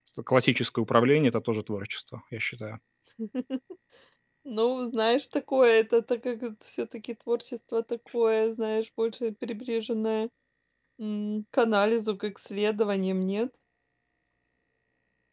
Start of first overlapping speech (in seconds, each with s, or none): none